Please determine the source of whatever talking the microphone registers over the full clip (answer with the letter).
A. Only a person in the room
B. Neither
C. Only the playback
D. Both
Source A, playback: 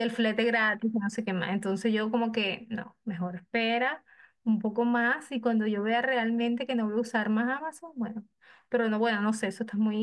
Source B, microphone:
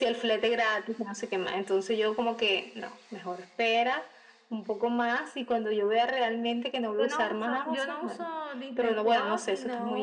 D